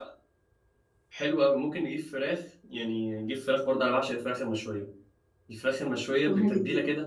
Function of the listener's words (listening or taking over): listening